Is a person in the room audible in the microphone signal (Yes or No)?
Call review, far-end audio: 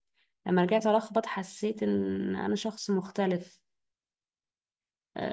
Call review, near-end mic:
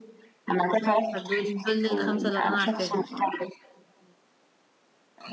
Yes